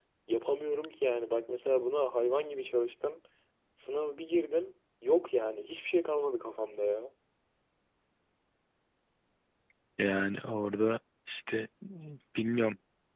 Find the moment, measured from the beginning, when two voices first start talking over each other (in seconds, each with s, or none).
none